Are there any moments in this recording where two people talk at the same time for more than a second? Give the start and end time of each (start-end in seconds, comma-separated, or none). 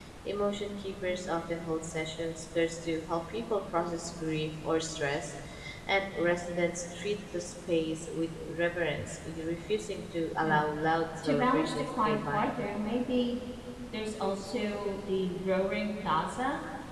11.2-12.5